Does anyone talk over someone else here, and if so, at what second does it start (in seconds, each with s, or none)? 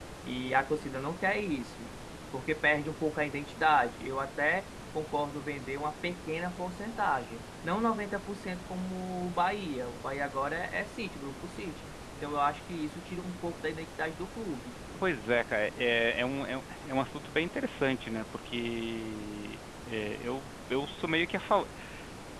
none